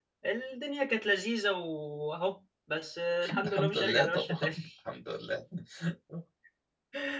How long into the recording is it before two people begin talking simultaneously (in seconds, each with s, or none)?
3.2 s